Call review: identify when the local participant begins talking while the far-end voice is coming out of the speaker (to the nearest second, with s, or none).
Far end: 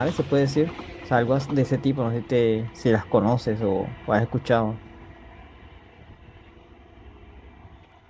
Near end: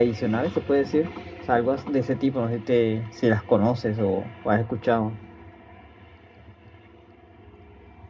none